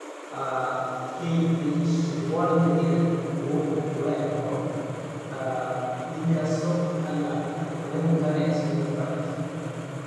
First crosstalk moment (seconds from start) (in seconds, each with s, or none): none